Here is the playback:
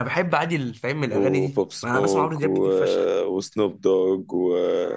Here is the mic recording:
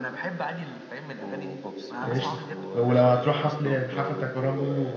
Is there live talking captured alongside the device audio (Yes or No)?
Yes